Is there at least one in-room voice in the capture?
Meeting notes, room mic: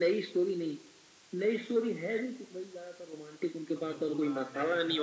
Yes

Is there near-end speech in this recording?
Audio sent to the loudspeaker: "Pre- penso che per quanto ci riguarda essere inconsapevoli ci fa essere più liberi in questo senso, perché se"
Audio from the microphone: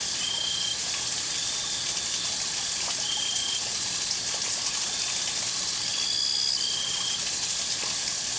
No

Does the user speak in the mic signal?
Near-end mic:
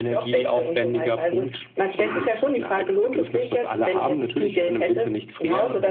No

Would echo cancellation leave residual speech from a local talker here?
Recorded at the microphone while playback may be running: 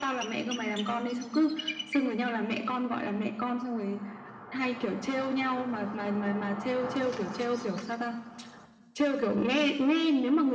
No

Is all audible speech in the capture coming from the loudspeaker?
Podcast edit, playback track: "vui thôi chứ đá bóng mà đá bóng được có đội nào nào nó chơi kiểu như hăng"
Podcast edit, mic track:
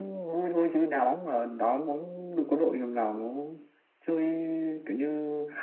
Yes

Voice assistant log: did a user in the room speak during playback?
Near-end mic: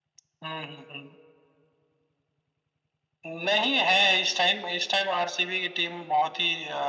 No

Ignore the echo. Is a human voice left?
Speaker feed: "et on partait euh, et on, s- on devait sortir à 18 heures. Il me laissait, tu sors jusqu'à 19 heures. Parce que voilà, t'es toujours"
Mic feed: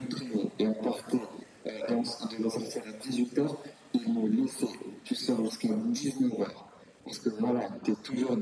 No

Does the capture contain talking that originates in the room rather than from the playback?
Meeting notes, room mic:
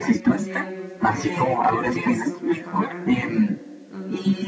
Yes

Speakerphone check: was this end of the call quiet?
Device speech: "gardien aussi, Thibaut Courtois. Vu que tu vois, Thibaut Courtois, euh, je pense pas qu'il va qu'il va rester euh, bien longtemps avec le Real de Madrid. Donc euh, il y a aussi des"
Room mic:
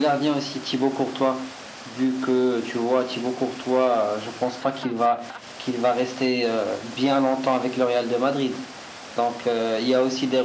Yes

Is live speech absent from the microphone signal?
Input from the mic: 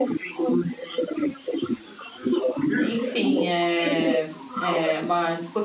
No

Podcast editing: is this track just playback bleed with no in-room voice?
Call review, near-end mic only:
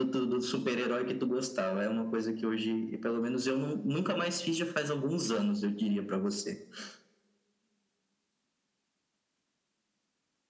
Yes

